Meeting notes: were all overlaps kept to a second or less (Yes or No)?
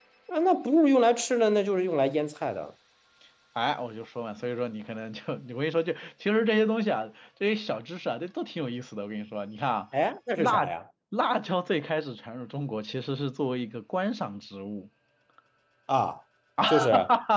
Yes